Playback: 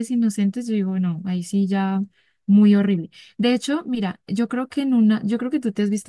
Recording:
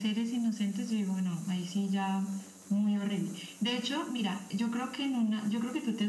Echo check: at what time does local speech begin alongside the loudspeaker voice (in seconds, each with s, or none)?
none